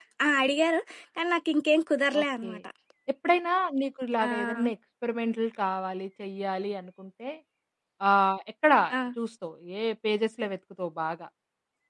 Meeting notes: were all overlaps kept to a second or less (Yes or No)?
Yes